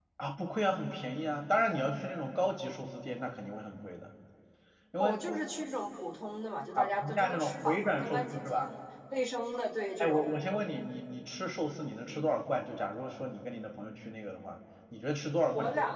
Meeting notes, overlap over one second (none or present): present